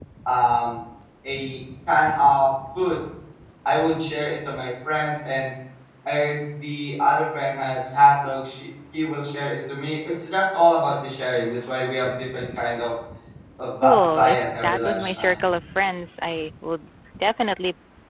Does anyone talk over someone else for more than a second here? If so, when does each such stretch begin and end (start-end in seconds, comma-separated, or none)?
13.8-15.3